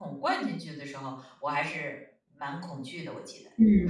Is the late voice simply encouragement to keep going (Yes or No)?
No